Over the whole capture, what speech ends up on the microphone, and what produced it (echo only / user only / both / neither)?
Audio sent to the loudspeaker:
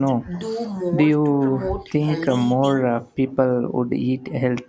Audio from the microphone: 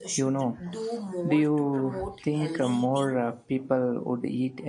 echo only